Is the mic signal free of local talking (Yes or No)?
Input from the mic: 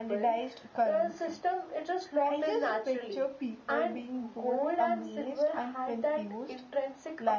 No